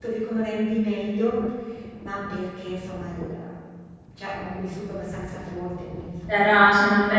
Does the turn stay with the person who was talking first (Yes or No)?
No